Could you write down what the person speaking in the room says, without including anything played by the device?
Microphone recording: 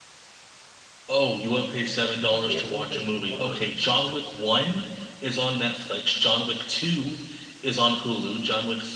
You can't prove that you were.

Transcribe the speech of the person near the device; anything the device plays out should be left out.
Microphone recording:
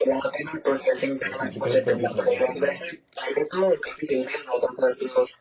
मैं कॉम्प्लिकेटेड कर दिया थोड़ा सा लग रहा है

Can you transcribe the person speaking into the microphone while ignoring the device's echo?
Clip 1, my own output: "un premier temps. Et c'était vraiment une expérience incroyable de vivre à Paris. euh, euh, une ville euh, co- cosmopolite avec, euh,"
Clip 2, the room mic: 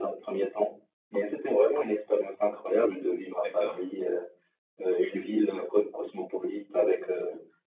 D'accord.

